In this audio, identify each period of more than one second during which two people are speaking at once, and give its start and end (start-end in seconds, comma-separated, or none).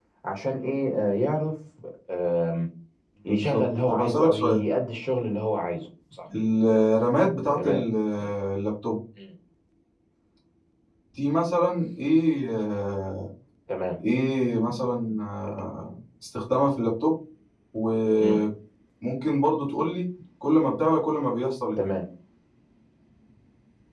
3.3-4.6